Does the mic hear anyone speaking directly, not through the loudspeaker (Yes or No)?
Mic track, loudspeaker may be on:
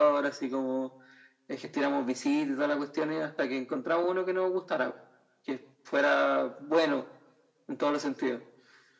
No